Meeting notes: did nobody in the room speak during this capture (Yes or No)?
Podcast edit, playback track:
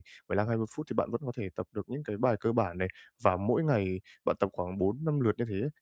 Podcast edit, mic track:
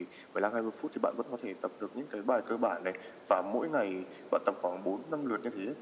Yes